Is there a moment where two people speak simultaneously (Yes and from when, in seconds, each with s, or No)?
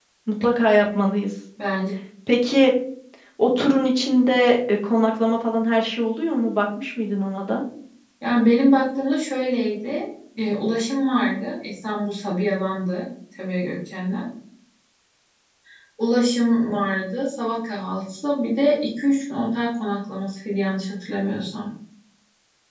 No